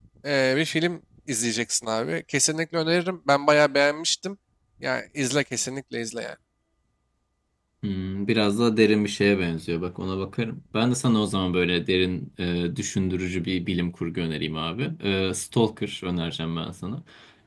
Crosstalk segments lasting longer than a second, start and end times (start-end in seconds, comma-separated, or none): none